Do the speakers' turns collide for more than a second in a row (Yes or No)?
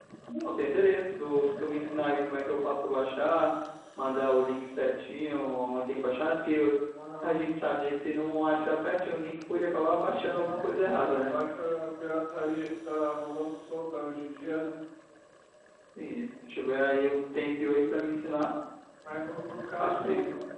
No